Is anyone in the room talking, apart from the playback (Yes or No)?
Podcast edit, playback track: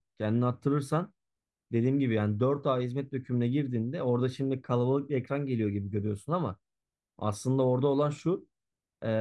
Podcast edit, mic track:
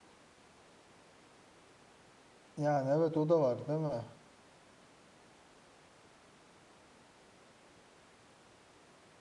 Yes